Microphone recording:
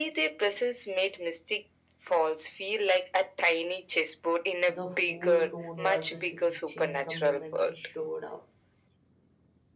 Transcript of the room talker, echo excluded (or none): The whole tone was the series changed the moment he showed up.